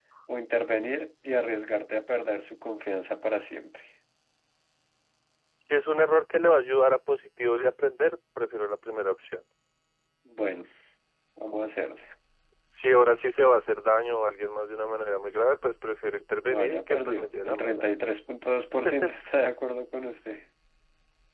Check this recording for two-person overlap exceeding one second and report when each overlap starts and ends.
16.5-17.8

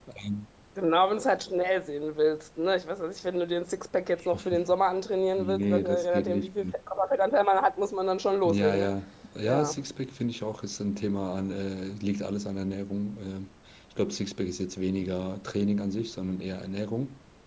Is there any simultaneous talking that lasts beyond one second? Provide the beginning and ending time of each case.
5.4-6.7

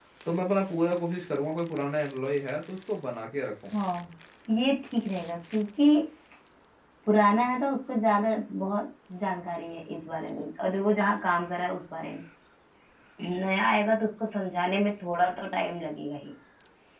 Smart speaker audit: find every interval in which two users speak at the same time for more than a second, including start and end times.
none

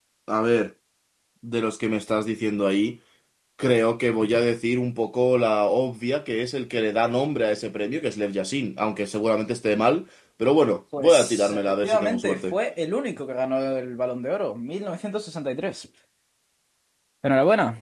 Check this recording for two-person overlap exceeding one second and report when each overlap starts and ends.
11.0-12.6

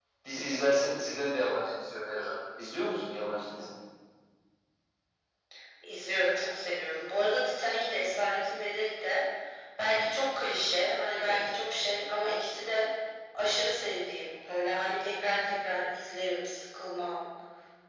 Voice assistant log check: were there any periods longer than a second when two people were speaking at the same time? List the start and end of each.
none

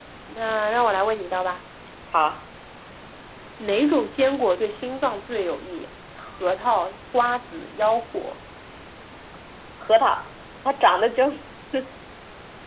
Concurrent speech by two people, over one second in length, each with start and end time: none

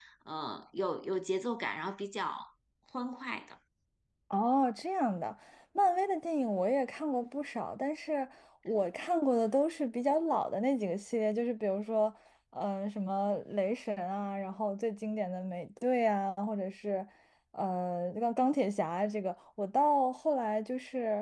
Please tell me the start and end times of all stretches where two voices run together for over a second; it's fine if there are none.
none

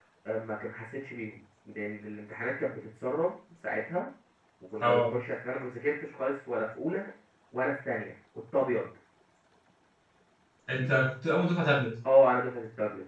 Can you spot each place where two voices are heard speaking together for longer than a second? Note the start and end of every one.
none

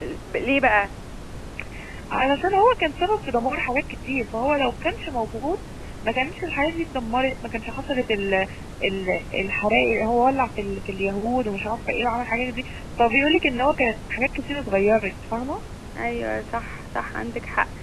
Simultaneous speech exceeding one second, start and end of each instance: none

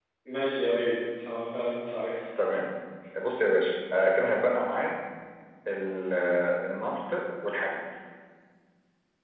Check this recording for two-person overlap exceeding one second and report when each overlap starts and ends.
none

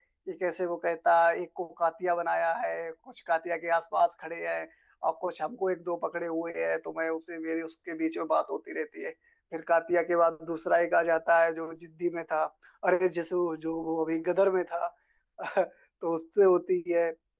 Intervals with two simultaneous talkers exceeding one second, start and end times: none

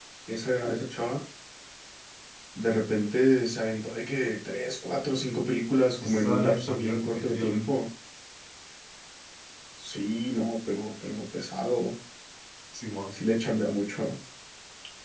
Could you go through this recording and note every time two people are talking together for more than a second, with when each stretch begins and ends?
6.0-7.7

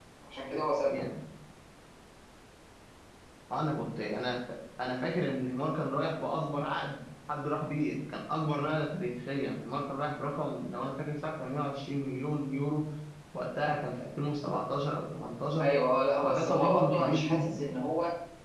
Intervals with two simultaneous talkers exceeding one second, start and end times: 16.2-17.7

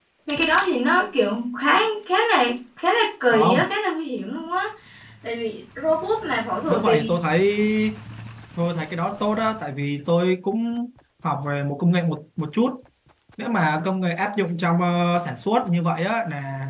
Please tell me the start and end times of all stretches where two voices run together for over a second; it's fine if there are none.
none

